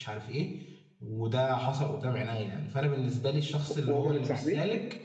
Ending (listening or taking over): listening